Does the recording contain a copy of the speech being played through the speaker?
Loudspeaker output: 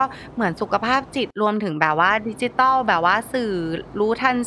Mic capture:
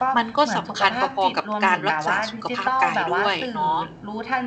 Yes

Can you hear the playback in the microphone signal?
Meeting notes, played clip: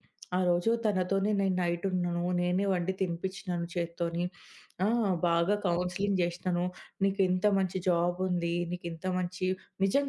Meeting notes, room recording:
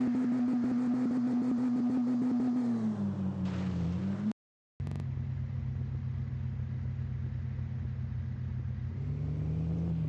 No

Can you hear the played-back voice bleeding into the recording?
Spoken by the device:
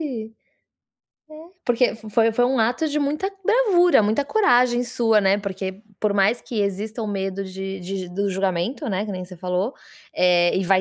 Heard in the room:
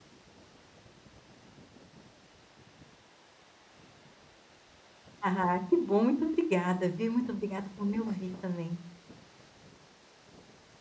No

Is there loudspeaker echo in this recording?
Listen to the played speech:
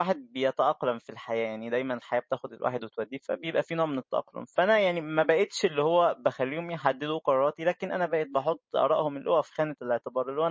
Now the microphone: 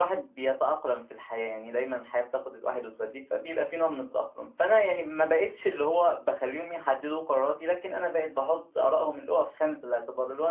Yes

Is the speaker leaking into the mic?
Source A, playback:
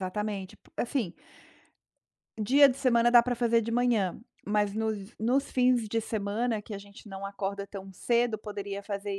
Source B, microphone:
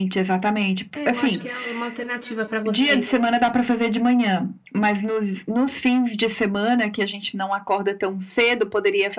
Yes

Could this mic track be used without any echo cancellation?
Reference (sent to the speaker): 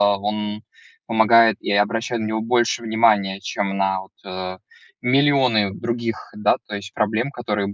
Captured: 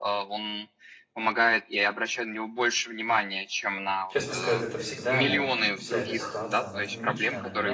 No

